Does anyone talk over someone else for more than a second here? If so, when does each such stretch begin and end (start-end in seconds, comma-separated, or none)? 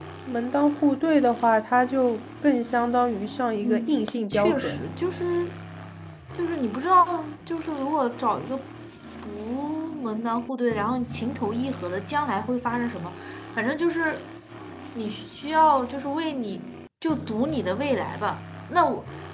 3.6-4.8